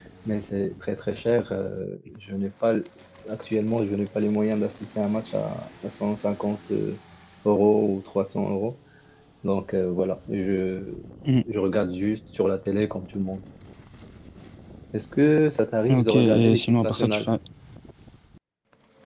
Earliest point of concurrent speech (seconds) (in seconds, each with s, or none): 15.9 s